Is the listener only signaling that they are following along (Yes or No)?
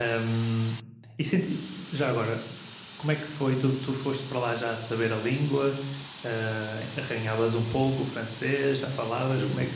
No